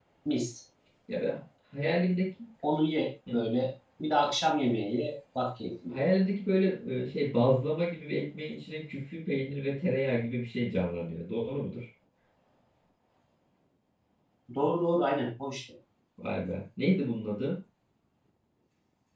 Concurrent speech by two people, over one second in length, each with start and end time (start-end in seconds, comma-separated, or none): none